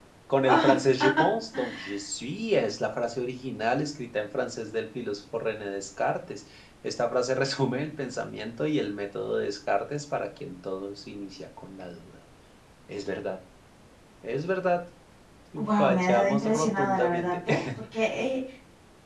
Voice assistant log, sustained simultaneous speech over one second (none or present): present